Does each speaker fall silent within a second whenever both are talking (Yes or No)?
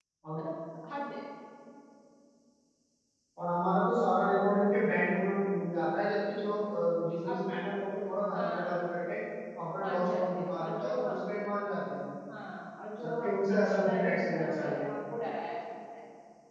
No